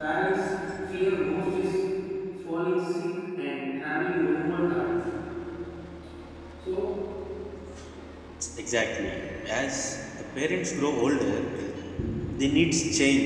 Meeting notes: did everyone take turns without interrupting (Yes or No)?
Yes